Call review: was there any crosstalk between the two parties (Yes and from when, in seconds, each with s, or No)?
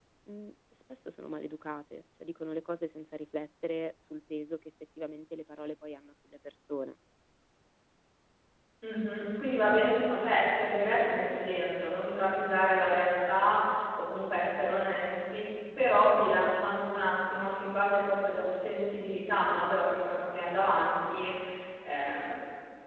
No